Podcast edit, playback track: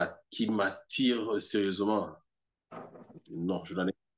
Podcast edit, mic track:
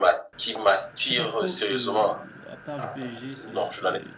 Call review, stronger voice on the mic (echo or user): echo